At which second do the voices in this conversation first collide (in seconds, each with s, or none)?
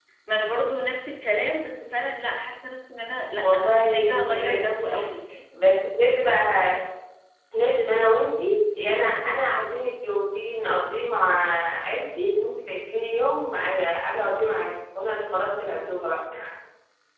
3.4 s